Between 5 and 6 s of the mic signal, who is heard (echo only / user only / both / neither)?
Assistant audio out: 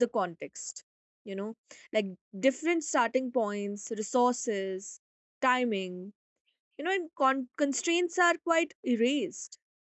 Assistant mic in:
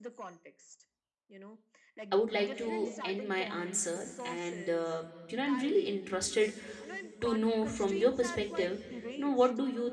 both